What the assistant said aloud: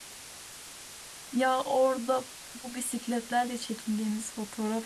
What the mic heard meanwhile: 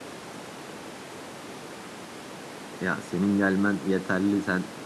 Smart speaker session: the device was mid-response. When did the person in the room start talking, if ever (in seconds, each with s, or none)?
2.8 s